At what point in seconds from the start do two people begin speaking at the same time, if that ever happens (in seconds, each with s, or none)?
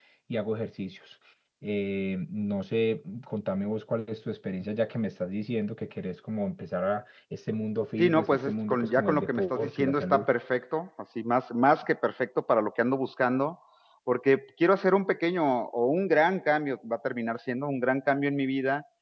8.0 s